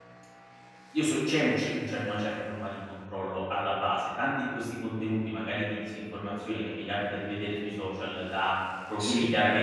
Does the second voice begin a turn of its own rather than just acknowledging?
No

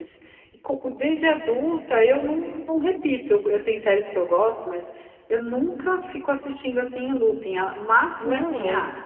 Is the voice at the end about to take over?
No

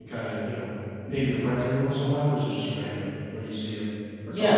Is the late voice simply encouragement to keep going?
No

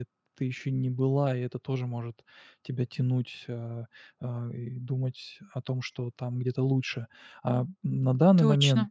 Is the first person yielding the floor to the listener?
No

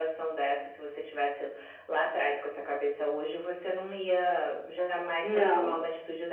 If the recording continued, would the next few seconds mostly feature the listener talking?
No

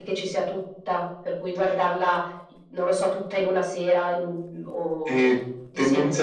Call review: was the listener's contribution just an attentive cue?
No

